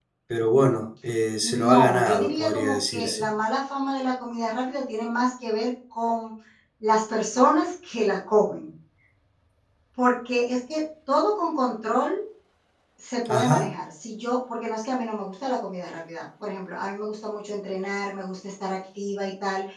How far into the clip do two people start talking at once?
1.4 s

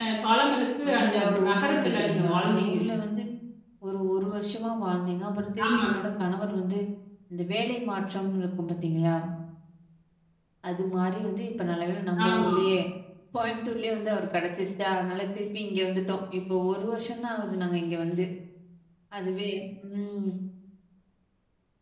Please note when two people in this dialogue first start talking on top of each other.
0.9 s

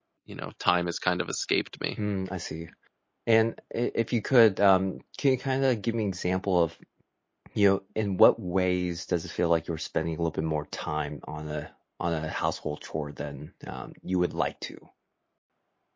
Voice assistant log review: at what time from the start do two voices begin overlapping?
none

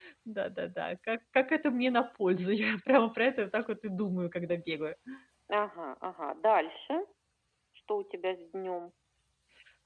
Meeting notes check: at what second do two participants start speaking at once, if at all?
none

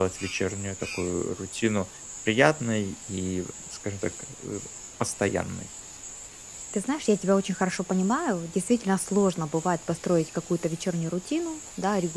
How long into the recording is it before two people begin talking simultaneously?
none

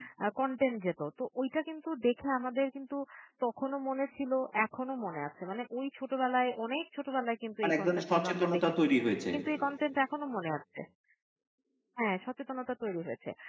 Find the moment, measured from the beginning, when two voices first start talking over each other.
7.6 s

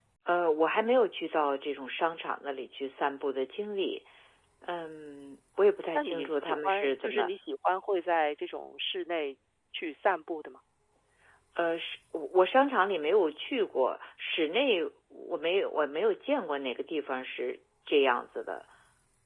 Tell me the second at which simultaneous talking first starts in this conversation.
6.0 s

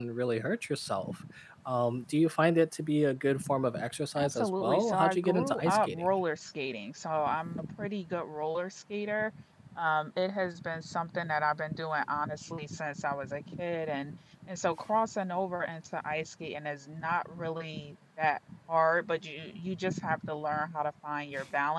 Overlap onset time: 4.2 s

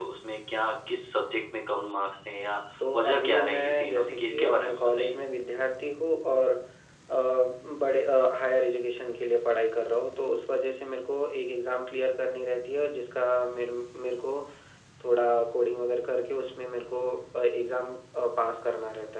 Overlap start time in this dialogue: 2.8 s

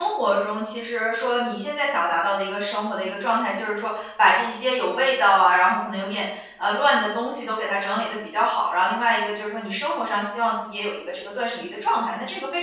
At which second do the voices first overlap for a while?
none

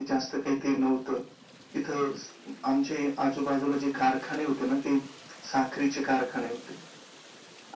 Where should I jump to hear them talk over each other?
none

